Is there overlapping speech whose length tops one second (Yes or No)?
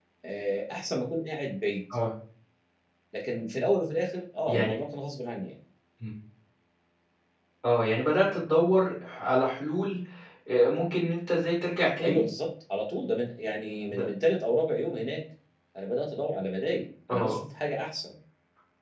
No